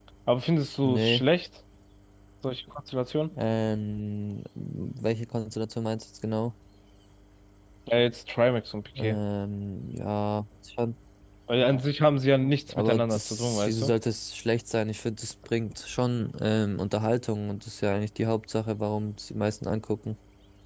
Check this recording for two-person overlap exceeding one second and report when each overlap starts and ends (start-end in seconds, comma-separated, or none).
12.7-13.9